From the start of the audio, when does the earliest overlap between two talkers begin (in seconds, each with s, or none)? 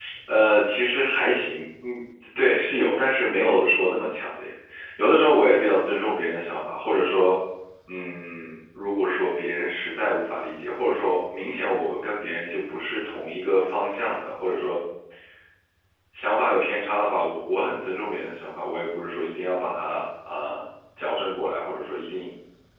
none